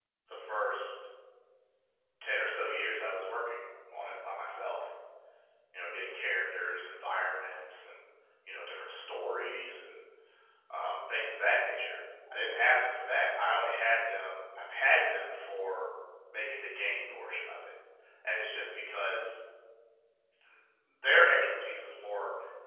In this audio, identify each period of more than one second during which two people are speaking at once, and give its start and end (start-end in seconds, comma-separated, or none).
none